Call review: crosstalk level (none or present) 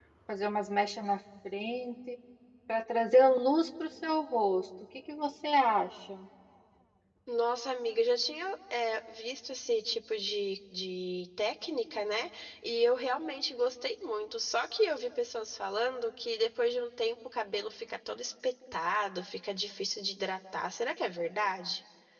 none